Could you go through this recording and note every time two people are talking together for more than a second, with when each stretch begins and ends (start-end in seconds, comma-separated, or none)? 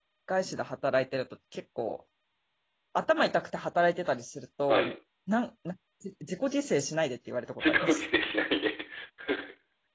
none